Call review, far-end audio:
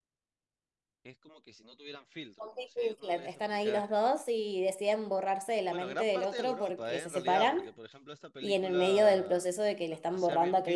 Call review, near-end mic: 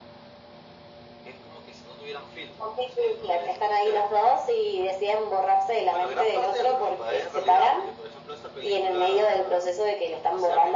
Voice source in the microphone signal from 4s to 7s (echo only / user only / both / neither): echo only